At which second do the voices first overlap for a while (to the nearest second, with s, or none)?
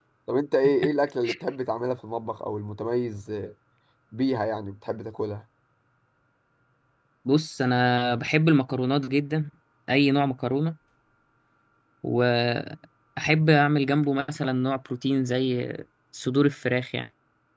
none